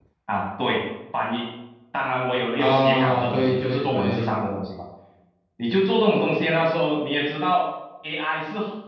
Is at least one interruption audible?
Yes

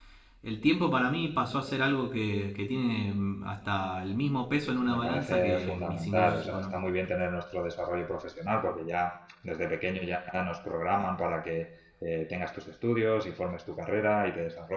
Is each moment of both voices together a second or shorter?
No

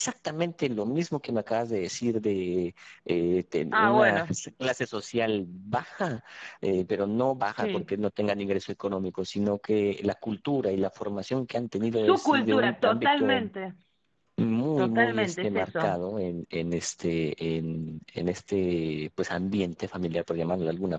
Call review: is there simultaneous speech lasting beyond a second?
Yes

